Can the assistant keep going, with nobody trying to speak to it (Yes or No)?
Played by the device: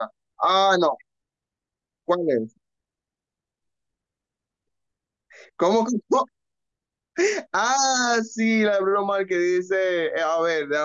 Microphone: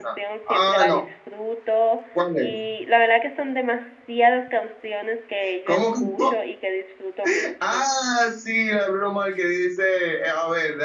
No